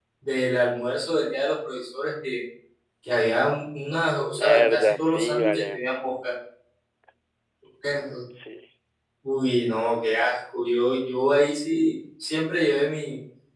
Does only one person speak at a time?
No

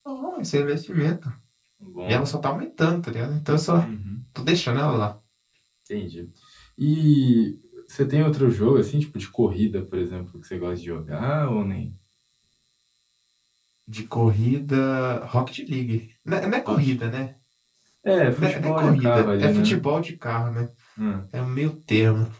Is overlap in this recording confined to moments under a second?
No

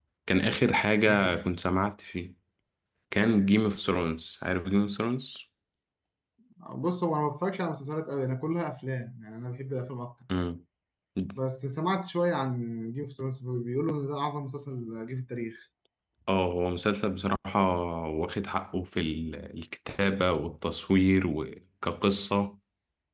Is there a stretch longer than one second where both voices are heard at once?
No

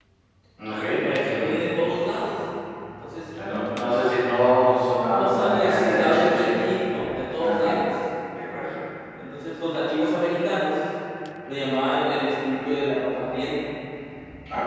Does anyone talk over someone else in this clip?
Yes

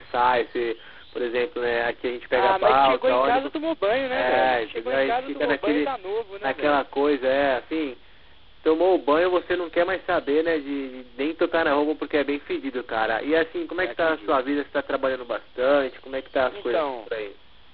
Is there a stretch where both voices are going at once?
Yes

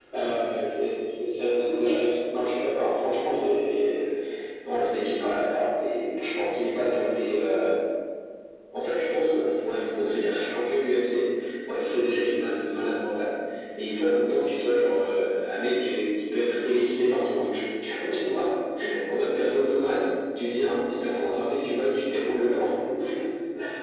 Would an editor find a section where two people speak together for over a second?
No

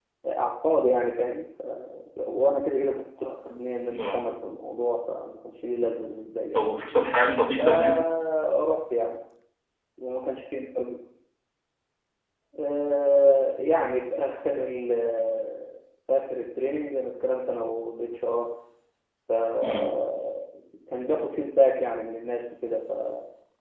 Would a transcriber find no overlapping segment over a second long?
Yes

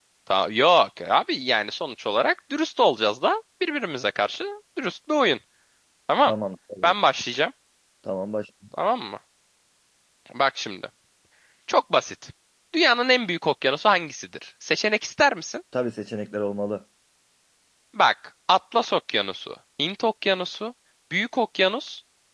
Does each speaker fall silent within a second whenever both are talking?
Yes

